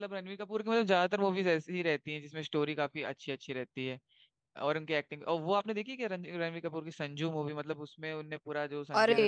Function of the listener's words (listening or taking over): taking over